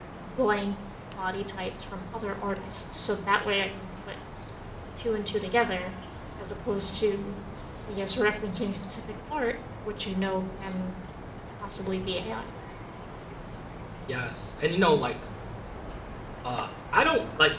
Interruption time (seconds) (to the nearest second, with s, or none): none